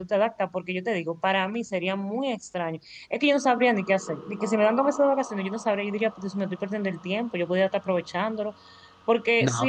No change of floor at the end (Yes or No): No